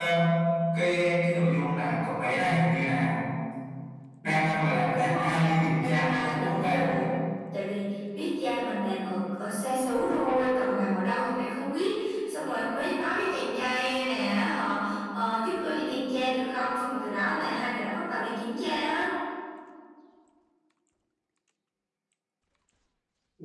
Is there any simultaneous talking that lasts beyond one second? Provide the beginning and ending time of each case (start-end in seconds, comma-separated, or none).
4.9-6.8